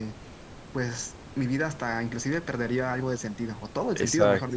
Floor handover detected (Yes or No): Yes